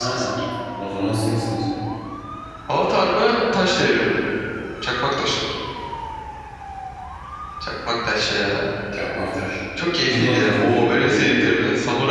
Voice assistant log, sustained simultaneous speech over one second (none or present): present